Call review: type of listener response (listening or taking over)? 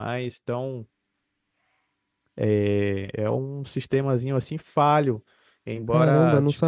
taking over